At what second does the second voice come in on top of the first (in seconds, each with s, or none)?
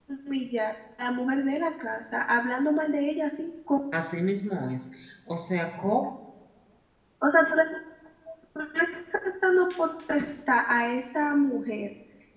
none